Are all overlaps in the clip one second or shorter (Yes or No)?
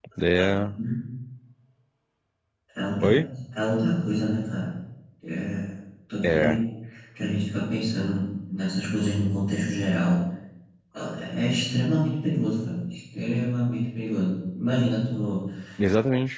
Yes